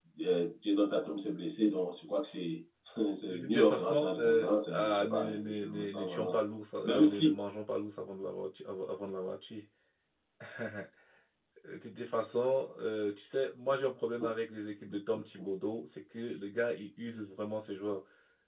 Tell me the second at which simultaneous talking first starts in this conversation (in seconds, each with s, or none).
3.3 s